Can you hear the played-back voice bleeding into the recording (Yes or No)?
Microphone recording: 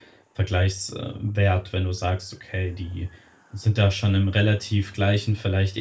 No